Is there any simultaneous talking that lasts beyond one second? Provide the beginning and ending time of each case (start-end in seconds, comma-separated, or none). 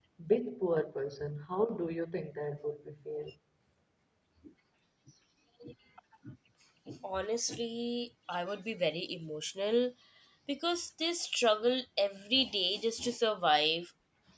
none